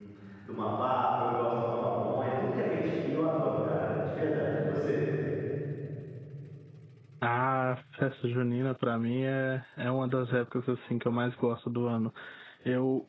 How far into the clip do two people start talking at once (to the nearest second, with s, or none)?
none